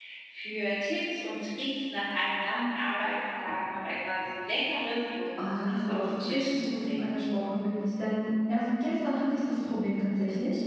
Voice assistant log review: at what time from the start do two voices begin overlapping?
5.4 s

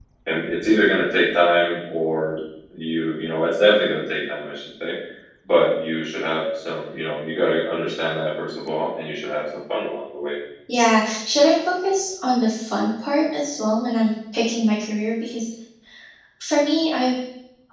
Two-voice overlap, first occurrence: none

